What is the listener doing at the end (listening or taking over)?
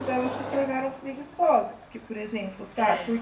listening